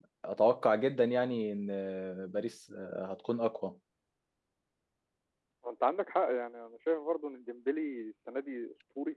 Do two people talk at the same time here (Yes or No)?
No